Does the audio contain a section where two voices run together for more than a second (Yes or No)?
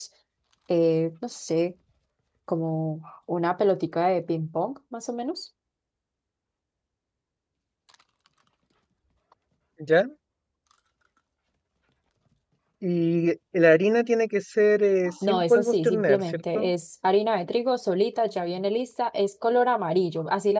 Yes